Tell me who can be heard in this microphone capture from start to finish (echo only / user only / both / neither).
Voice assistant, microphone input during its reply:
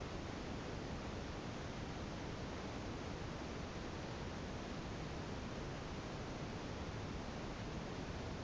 neither